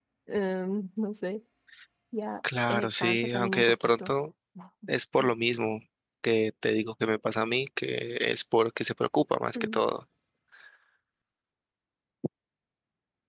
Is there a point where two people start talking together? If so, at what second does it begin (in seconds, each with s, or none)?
2.4 s